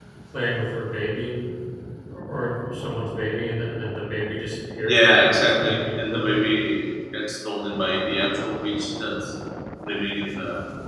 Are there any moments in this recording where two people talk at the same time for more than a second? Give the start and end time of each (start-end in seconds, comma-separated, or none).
4.8-6.3